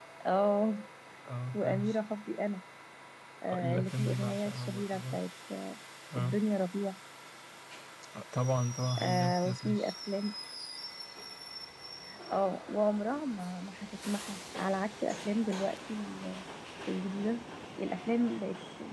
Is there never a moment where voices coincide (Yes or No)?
No